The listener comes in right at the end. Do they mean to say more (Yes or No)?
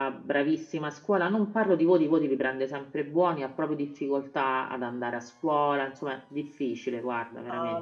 Yes